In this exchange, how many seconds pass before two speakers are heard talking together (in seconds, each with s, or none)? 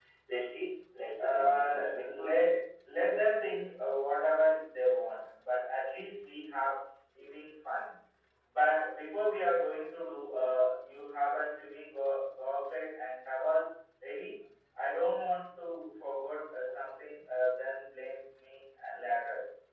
1.2 s